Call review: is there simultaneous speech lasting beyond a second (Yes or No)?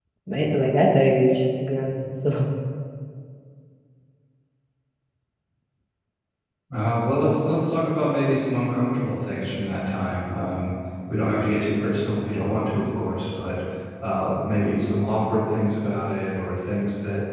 No